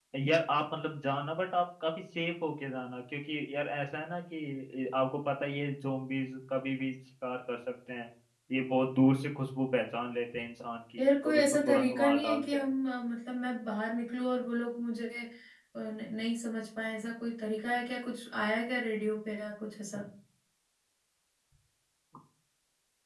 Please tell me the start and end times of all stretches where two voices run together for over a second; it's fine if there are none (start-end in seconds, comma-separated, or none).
11.0-12.6